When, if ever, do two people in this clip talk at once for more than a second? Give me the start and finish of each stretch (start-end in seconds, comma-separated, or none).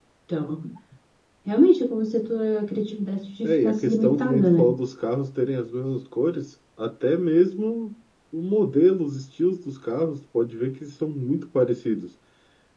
3.4-4.8